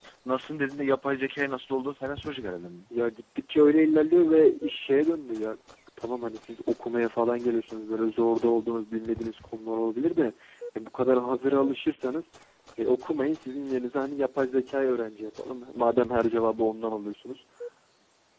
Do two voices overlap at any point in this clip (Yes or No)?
No